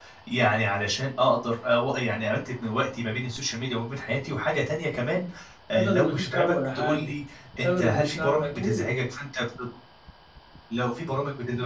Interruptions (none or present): present